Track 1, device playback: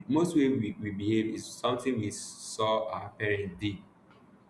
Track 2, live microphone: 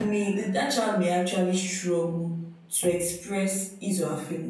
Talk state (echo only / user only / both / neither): user only